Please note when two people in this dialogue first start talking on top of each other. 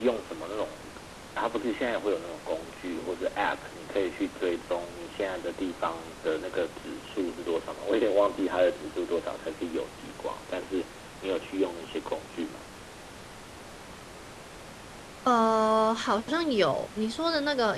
none

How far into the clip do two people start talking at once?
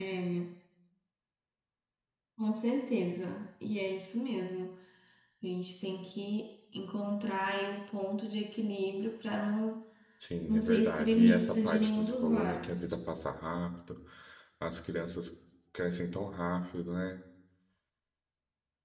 10.5 s

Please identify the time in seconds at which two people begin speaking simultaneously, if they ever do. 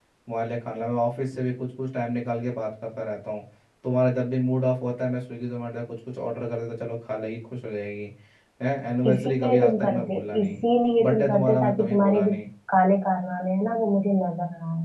9.1 s

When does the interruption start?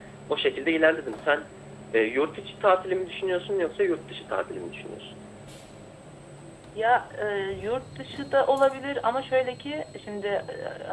none

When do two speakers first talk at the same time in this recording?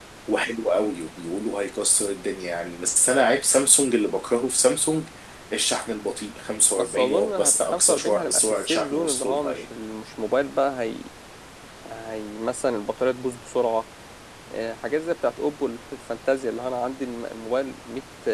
6.8 s

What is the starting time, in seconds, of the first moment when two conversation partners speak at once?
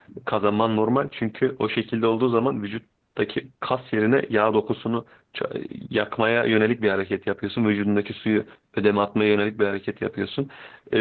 none

